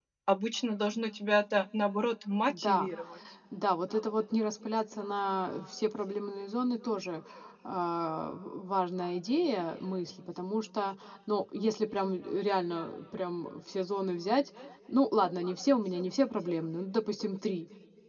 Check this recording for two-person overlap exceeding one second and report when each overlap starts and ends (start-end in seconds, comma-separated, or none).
none